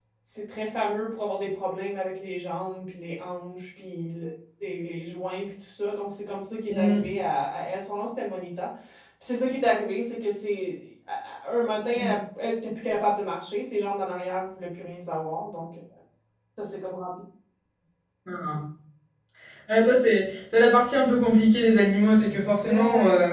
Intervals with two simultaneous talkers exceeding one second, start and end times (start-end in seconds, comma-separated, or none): none